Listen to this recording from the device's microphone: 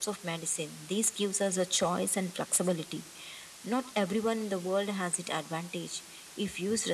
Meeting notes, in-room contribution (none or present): none